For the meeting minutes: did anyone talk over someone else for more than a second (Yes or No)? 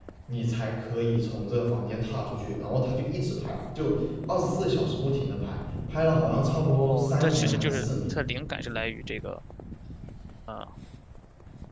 Yes